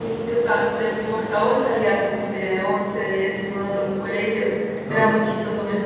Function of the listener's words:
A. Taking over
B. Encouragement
B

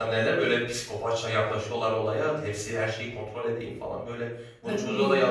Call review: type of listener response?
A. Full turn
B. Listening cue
B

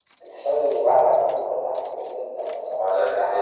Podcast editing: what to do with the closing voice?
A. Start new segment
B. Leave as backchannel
B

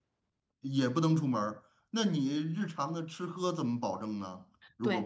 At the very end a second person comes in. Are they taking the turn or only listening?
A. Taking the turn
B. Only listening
A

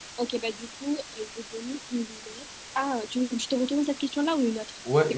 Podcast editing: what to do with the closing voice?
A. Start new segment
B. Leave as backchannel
A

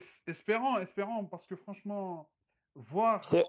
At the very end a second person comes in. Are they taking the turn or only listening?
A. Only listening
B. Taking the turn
A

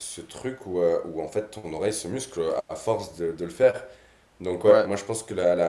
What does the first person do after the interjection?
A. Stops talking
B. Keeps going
B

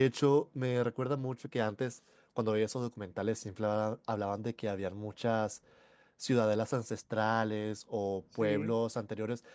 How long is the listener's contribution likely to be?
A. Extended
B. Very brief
B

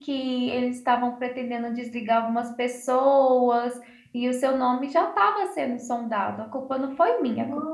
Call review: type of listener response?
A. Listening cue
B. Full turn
B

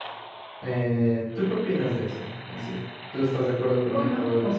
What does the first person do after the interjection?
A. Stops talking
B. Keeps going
A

